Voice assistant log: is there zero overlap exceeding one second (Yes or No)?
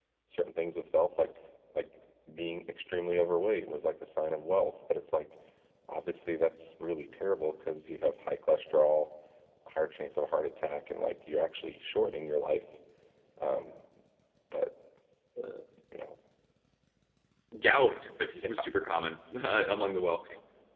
Yes